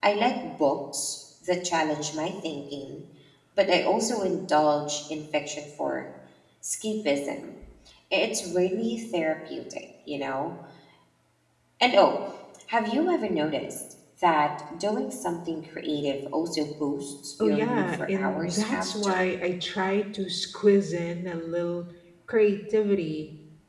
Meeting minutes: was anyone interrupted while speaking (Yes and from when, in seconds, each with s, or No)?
Yes, from 17.4 s